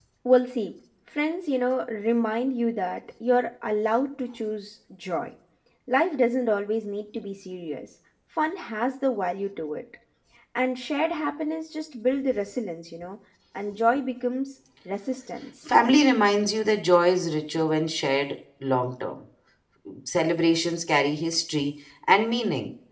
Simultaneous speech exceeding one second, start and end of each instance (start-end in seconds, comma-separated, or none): none